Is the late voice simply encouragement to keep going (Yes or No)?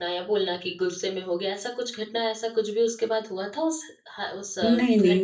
No